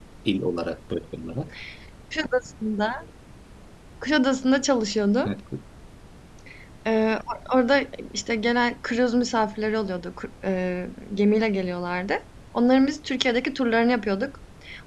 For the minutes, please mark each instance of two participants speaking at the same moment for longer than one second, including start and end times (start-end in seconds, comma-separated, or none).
none